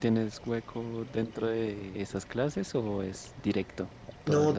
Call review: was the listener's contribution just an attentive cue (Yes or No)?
No